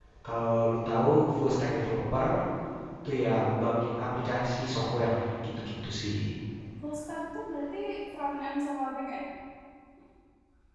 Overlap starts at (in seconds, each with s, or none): none